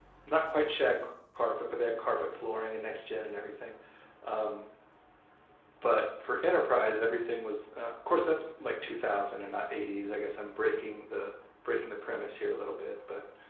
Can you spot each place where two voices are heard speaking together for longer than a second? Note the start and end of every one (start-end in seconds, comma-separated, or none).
none